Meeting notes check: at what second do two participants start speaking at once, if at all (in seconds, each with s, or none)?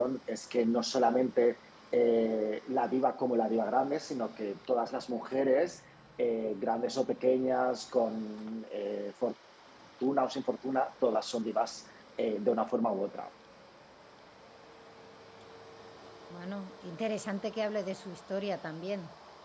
none